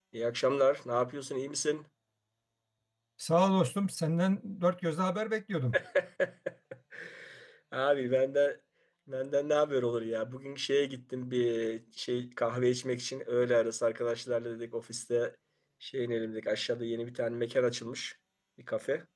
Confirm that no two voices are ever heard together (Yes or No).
Yes